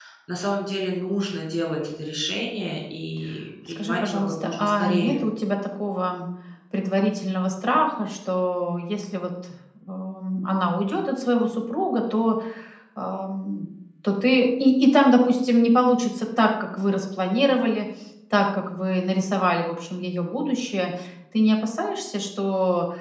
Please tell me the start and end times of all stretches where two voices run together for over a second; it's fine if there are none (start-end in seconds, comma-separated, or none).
3.7-5.2